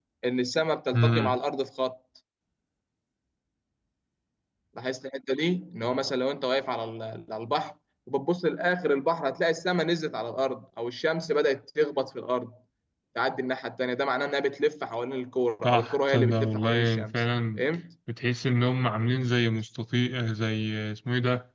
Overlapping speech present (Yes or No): Yes